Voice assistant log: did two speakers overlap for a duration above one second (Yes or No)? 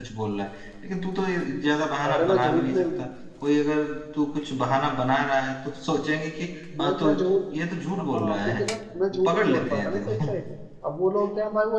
Yes